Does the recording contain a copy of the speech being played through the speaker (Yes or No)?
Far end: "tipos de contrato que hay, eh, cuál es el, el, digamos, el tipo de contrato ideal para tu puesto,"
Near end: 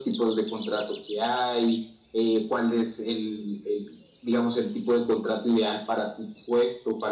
Yes